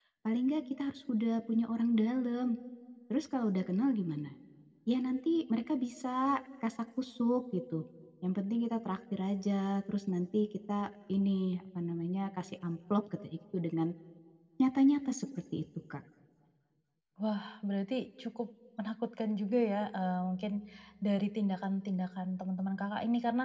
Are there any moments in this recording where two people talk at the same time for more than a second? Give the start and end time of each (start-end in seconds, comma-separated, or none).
none